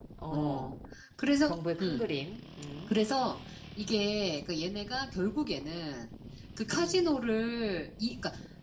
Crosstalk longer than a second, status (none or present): none